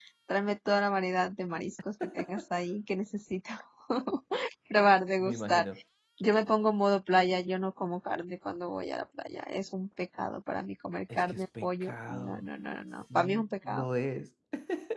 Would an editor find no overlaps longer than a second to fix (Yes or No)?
No